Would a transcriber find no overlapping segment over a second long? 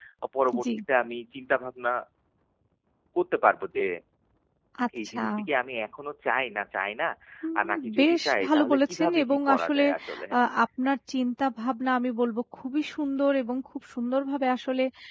No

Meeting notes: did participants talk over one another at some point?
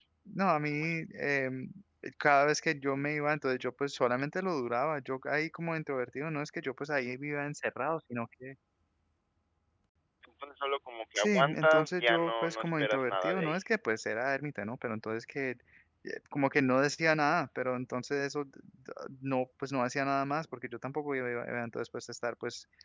Yes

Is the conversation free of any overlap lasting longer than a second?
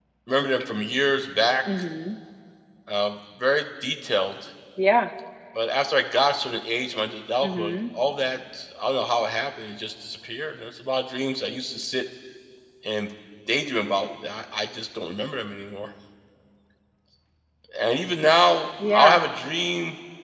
Yes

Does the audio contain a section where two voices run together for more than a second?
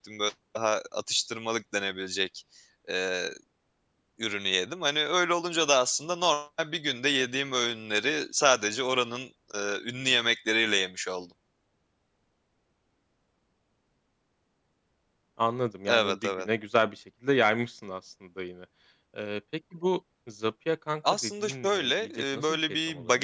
Yes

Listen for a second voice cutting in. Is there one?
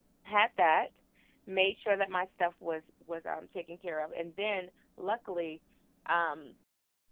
No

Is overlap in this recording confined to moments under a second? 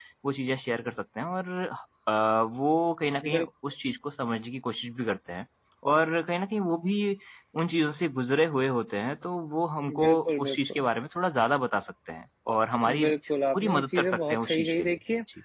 No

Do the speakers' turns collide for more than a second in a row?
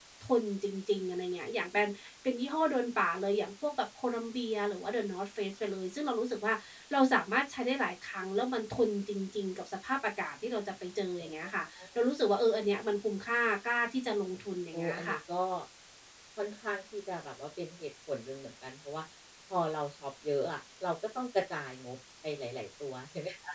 No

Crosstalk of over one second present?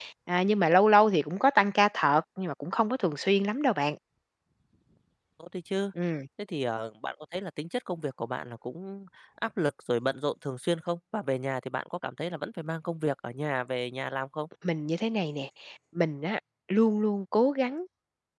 No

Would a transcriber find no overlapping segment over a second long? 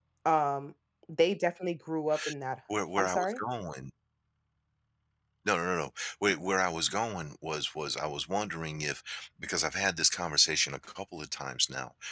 Yes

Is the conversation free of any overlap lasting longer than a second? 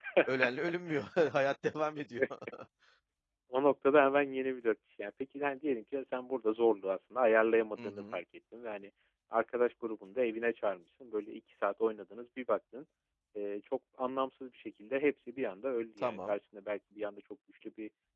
Yes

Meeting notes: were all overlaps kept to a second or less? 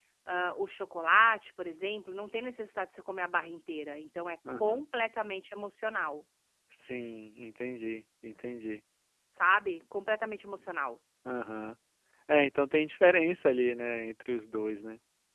Yes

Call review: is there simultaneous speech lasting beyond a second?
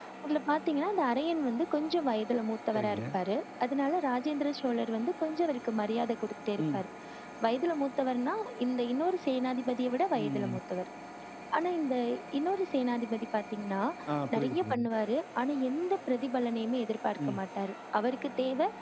No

